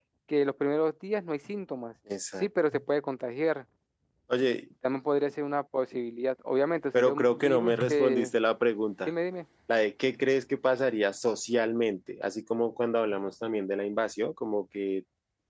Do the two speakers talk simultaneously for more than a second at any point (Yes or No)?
Yes